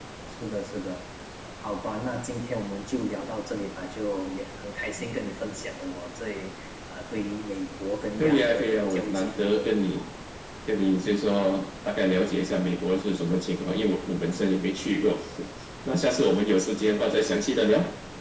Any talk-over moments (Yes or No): Yes